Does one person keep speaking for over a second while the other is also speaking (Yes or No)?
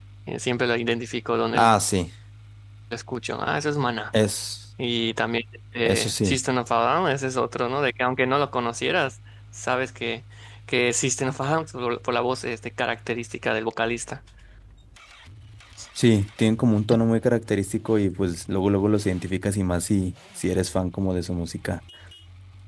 No